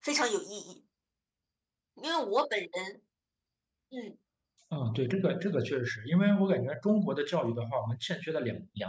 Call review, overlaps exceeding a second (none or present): none